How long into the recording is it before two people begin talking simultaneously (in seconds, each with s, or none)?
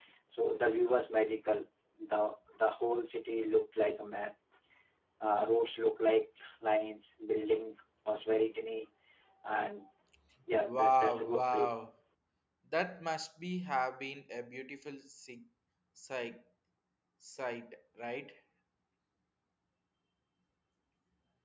10.6 s